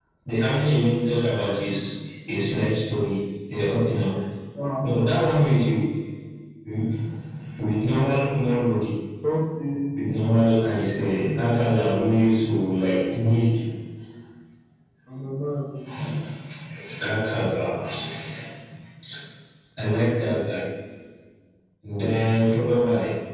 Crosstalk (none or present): none